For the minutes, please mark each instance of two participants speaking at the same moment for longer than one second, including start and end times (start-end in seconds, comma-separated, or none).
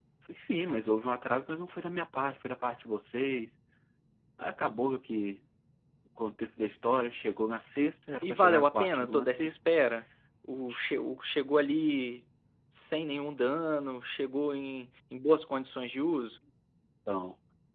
8.2-9.6